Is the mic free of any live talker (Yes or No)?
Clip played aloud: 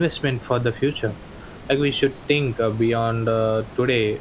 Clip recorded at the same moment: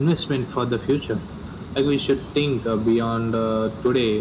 Yes